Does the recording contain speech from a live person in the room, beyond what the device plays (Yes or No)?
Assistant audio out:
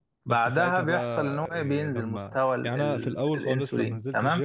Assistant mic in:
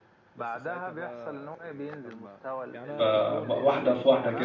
Yes